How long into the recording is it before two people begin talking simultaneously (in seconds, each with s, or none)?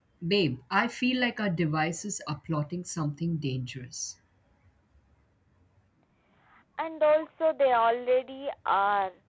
none